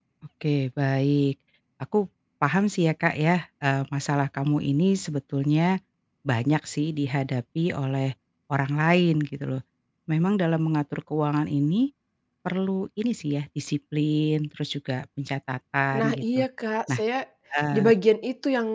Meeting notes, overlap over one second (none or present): none